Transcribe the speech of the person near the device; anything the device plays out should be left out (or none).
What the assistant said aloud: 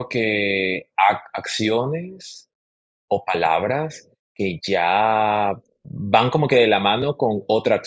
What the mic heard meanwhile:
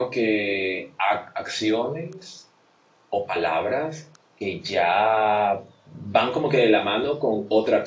none